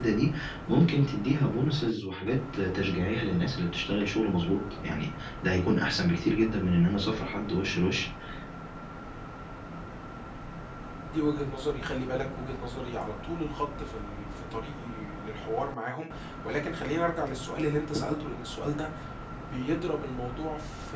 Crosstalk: none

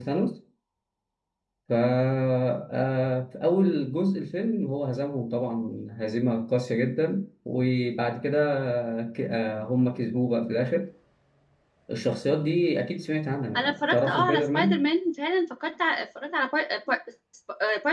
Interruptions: present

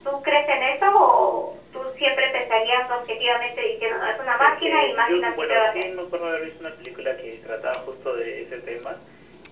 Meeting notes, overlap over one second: present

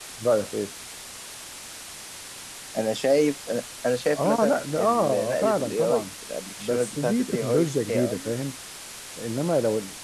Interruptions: present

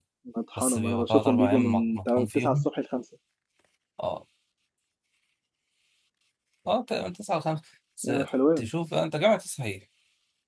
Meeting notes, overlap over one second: present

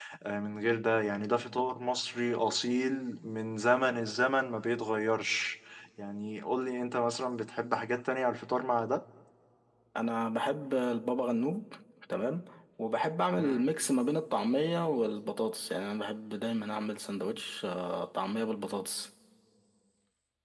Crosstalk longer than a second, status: none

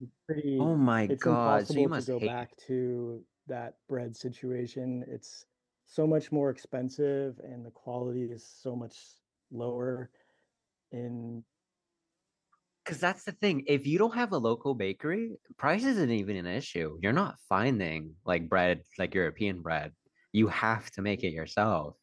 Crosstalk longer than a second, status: present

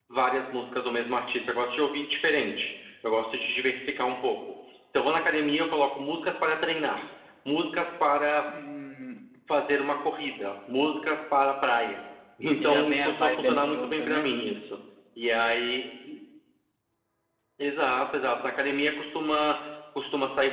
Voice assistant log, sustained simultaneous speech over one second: present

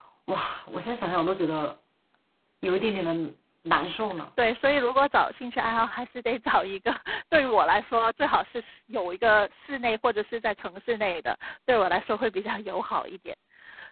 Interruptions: none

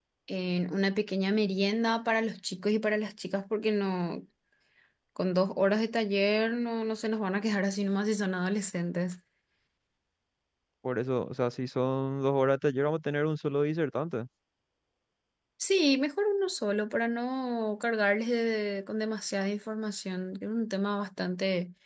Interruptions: none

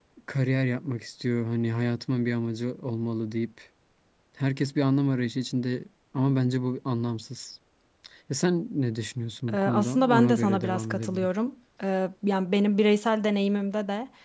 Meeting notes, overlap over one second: present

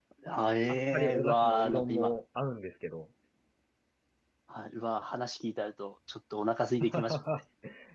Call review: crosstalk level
present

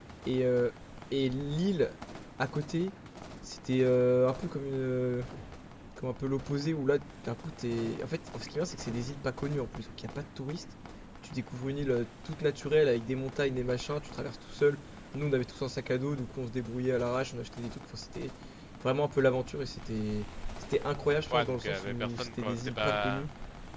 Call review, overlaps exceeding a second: present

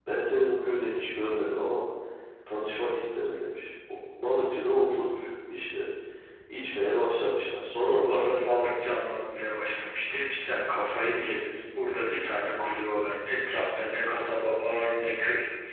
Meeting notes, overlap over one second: none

